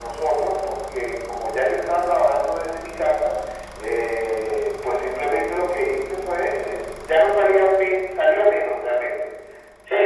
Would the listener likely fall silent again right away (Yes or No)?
No